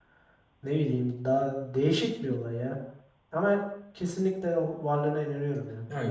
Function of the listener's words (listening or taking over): taking over